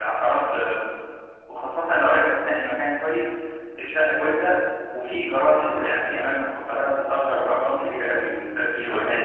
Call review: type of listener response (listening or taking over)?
taking over